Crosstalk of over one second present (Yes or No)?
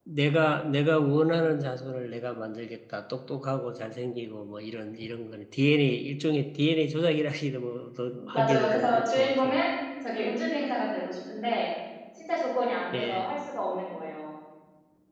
Yes